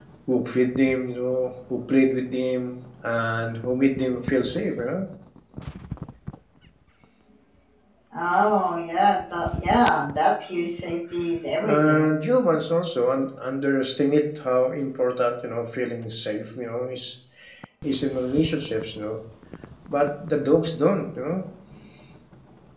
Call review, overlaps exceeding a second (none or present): none